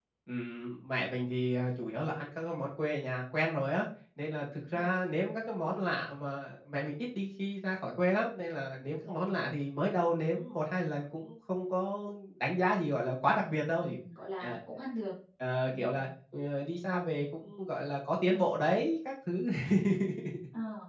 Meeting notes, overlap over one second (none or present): none